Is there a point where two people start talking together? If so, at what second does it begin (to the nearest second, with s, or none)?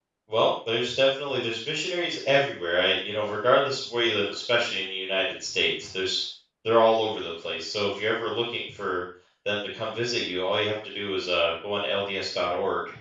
none